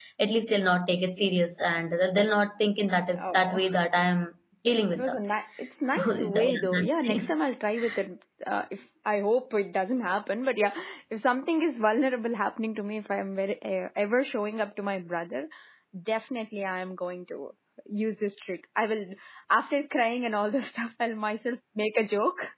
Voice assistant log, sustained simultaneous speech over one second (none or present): present